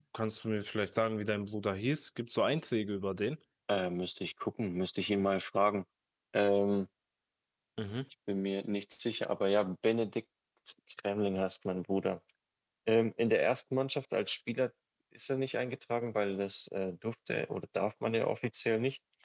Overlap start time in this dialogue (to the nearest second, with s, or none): none